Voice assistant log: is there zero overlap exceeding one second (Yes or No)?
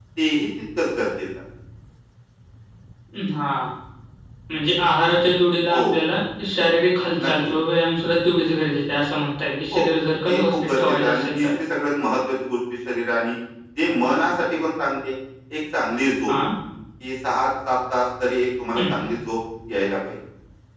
No